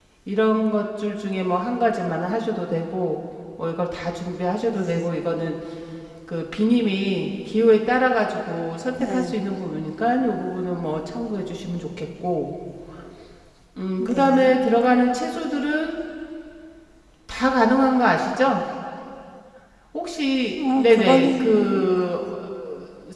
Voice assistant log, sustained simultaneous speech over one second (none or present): present